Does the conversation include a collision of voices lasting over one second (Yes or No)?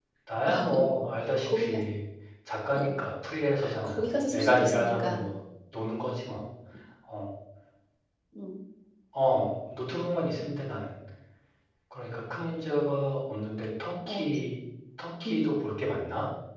Yes